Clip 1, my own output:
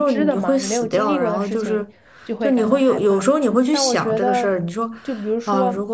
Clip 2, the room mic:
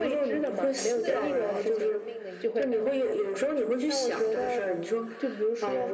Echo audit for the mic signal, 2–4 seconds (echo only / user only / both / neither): both